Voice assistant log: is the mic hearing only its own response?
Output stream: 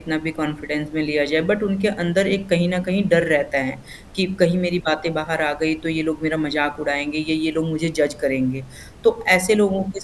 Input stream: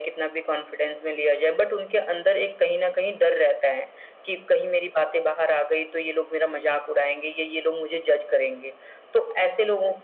Yes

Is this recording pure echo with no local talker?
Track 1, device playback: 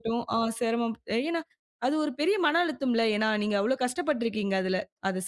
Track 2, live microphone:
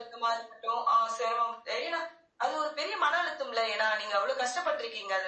Yes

